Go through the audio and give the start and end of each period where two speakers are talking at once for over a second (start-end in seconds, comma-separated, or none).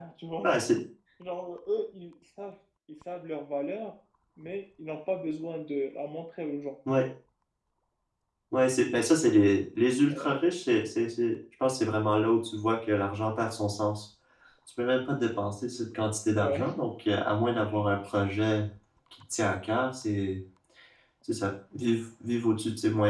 none